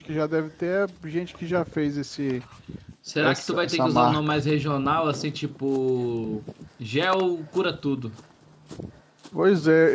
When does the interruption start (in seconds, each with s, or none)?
3.2 s